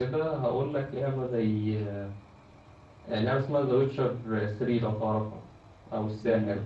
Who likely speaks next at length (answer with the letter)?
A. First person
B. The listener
B